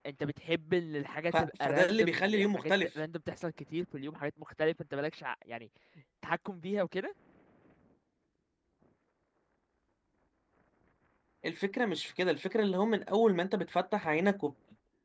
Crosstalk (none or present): present